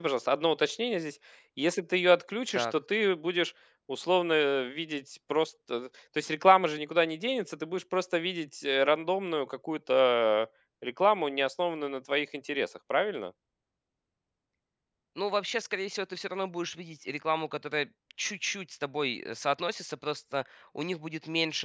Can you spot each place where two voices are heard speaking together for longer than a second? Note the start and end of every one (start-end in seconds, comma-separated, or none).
none